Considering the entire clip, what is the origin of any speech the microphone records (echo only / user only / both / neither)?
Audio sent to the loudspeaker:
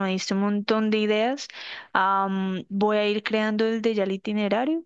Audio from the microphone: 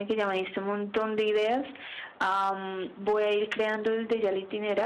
echo only